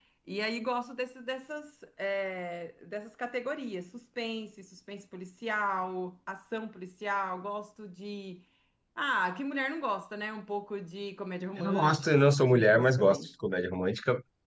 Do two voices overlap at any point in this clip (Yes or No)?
Yes